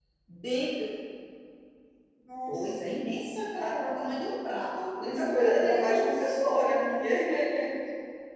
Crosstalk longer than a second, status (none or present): present